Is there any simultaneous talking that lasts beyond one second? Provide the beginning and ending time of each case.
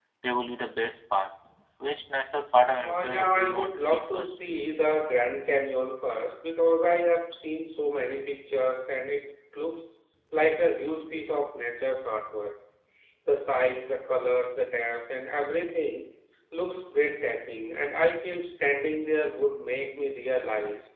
2.8-4.4

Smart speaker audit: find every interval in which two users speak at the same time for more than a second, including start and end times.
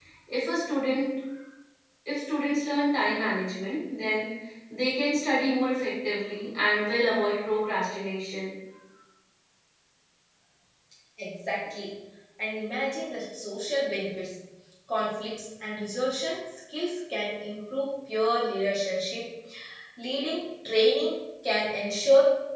none

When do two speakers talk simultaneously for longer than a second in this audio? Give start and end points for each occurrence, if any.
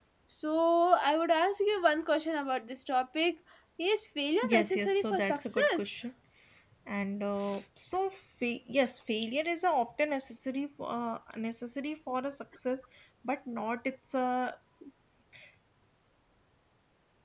4.4-5.8

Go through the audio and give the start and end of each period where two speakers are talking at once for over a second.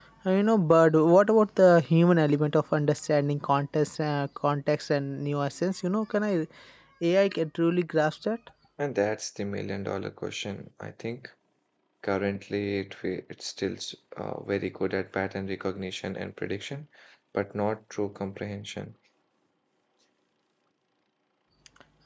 none

